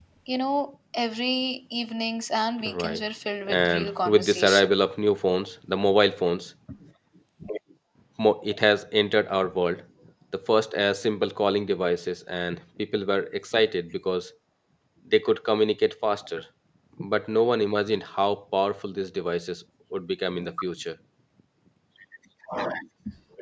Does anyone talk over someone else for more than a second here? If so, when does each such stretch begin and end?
3.5-4.7

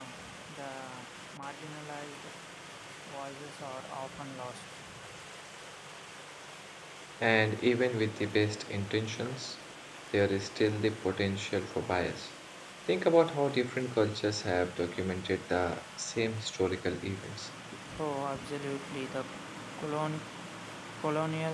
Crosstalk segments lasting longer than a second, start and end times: none

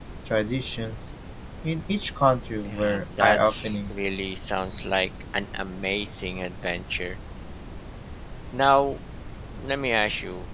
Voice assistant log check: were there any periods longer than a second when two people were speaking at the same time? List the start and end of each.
2.6-3.9

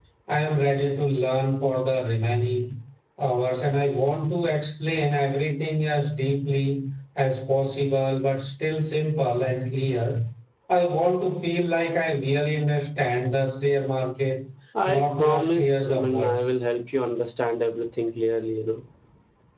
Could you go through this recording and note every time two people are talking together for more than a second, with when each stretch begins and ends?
14.8-16.5

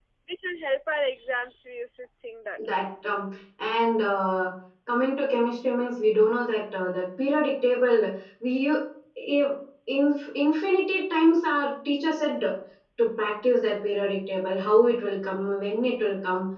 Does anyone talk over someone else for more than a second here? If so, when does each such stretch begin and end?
none

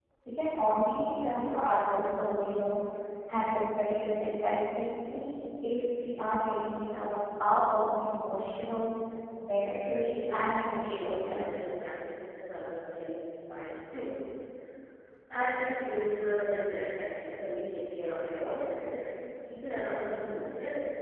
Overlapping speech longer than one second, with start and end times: 9.6-11.5

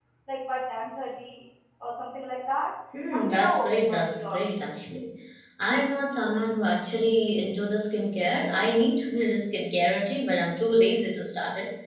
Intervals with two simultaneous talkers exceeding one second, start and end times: 3.1-4.5

